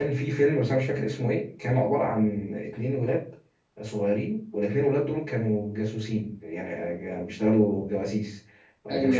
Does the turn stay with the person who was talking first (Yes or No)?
Yes